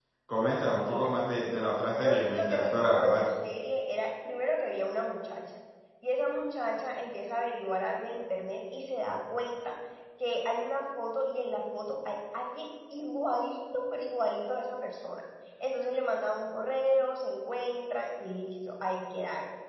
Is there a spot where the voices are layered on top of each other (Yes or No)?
Yes